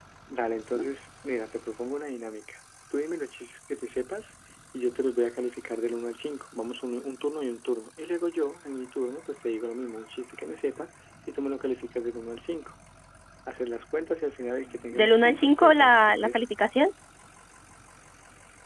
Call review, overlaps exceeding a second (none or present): present